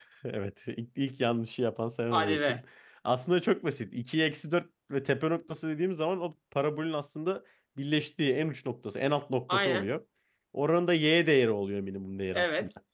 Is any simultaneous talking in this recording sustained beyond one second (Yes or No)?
No